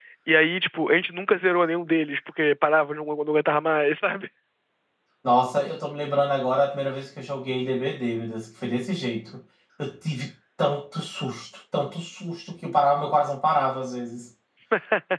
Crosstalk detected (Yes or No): No